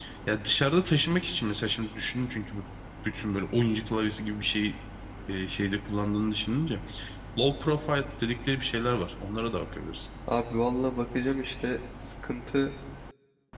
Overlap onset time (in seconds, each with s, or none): none